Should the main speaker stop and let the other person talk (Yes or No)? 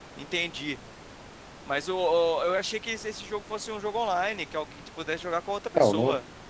Yes